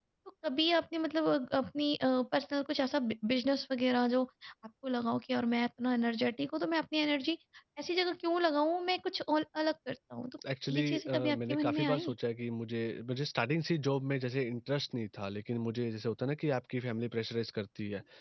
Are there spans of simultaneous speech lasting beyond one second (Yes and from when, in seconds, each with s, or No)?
Yes, from 10.7 s